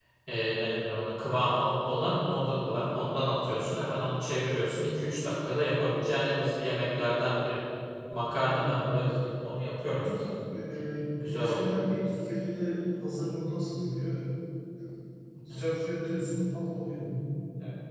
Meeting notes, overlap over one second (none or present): none